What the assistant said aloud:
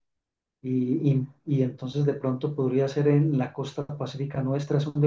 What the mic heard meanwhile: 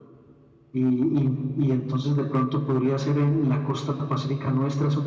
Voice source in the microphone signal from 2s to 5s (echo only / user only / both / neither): echo only